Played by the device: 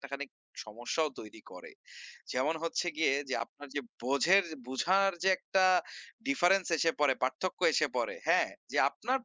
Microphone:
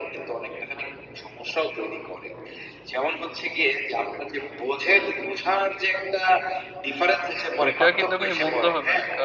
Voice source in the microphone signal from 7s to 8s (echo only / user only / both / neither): both